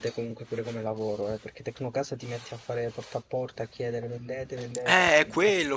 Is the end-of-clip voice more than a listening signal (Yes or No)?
Yes